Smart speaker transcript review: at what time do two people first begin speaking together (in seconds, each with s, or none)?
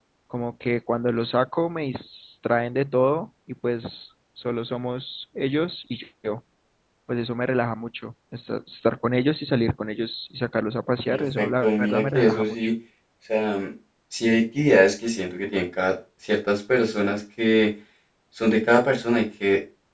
11.1 s